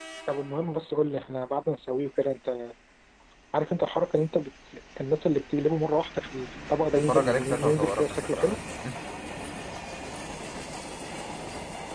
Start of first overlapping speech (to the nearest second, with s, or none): 7 s